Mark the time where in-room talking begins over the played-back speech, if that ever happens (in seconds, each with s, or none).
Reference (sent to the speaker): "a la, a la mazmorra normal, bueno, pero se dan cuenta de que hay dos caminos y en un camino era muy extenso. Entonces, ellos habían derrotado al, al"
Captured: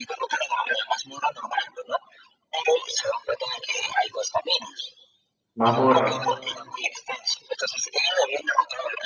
5.5 s